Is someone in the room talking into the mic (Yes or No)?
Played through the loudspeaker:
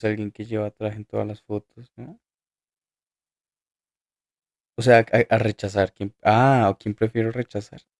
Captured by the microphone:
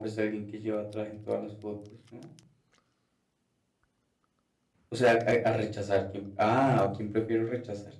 No